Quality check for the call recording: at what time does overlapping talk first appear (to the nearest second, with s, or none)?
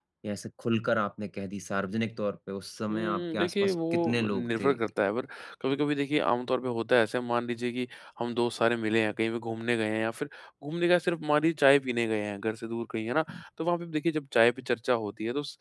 3 s